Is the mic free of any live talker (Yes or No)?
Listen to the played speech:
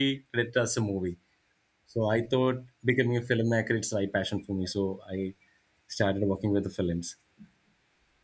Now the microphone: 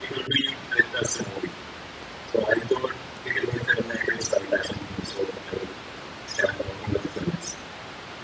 Yes